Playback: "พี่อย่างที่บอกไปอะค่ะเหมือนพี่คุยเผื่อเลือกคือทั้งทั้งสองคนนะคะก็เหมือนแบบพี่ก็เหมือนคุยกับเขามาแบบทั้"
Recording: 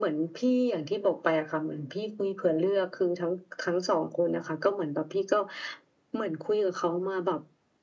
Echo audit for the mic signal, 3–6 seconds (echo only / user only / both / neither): echo only